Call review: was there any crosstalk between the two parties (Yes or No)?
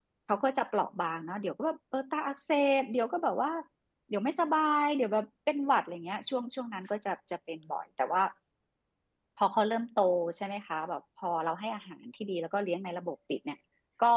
No